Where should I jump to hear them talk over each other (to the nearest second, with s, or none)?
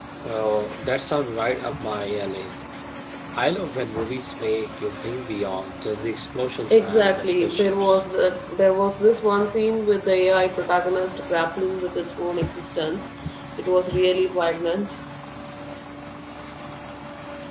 7 s